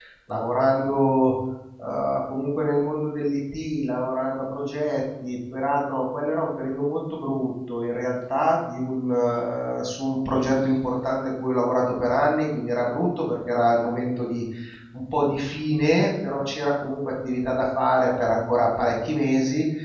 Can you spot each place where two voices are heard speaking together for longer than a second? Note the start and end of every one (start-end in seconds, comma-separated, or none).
none